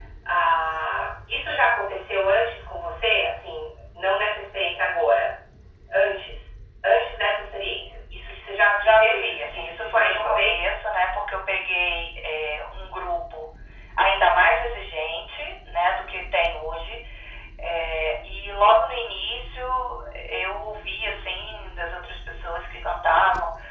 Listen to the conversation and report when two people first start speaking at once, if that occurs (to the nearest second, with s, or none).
9 s